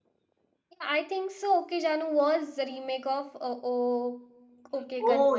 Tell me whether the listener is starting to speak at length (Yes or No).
Yes